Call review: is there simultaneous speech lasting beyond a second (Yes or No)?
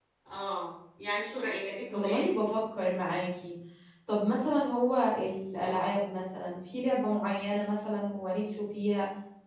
No